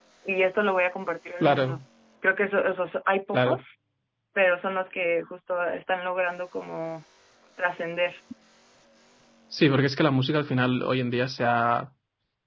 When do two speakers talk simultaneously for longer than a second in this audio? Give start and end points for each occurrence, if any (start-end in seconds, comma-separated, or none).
none